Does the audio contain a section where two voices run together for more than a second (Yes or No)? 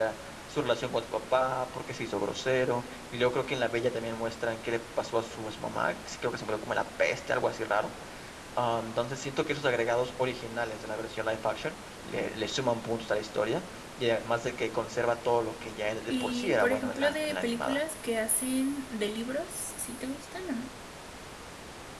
Yes